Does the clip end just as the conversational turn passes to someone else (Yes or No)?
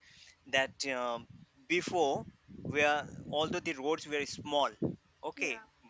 No